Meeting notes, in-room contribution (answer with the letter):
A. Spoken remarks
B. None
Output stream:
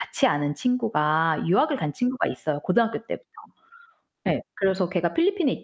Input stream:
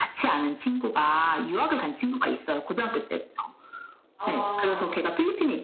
A